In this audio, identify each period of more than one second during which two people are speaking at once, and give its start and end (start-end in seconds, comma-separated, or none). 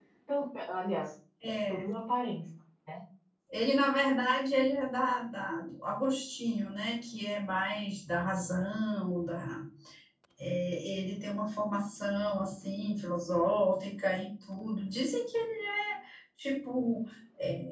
none